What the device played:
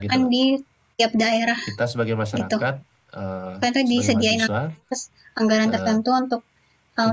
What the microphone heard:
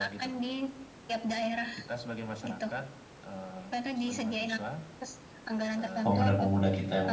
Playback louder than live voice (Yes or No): No